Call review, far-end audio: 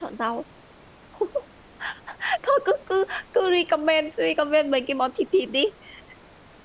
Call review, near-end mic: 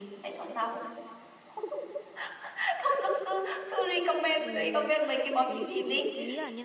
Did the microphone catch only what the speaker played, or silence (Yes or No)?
No